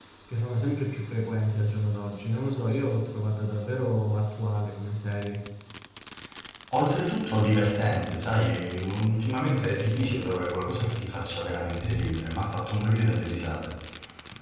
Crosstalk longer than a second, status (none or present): none